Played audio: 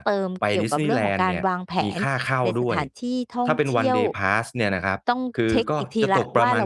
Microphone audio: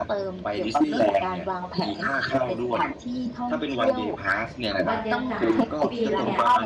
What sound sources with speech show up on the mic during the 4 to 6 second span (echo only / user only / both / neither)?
both